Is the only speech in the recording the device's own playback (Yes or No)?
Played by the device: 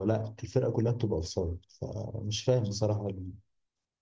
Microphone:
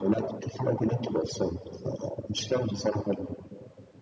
Yes